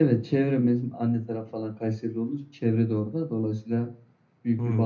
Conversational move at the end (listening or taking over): listening